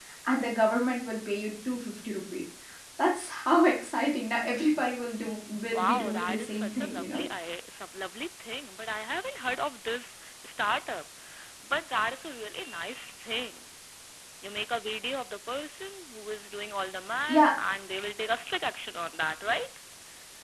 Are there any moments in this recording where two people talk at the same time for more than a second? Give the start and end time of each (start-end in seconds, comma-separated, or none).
5.7-7.2